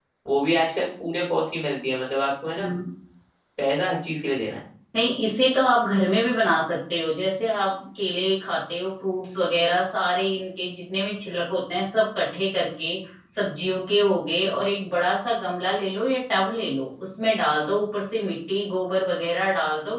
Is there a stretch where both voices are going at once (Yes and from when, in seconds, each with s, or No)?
No